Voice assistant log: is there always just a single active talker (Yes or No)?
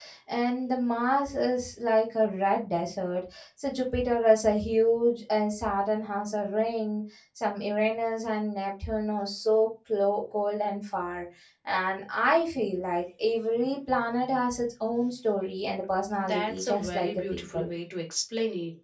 No